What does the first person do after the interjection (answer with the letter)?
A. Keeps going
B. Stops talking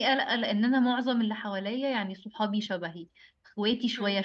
A